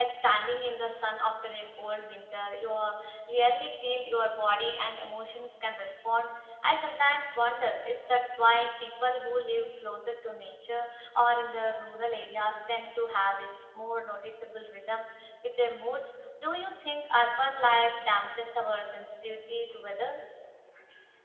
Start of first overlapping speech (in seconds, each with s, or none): none